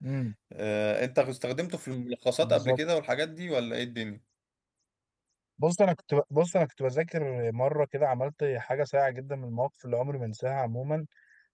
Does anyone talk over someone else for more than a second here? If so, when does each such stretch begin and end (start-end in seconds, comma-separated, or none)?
none